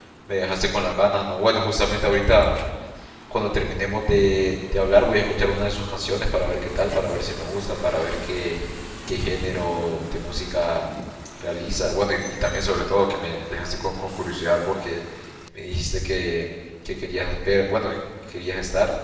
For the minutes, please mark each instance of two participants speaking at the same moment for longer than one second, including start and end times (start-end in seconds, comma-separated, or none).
none